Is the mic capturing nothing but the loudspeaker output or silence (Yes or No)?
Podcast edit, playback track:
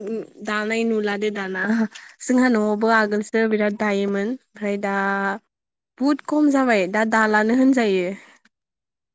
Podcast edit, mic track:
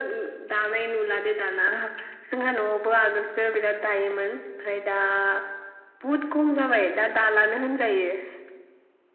Yes